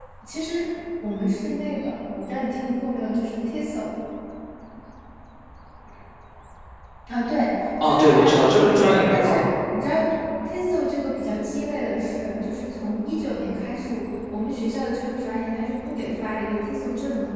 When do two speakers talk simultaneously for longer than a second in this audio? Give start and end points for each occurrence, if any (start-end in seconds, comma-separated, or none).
7.8-9.4